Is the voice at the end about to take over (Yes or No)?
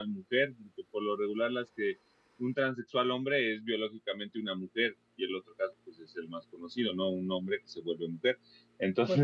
Yes